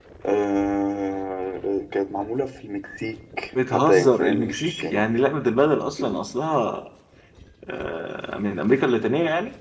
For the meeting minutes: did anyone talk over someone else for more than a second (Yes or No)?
Yes